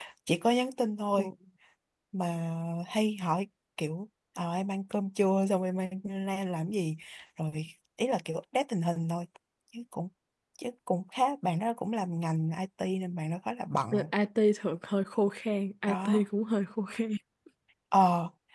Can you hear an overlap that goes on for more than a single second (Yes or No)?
No